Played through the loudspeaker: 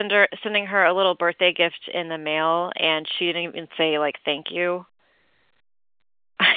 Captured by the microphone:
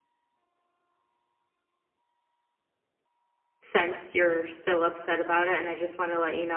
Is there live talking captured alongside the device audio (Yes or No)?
Yes